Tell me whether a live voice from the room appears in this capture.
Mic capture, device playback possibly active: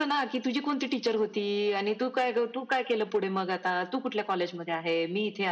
No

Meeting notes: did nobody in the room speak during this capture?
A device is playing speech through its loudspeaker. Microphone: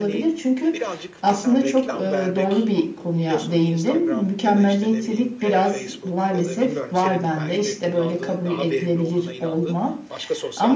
No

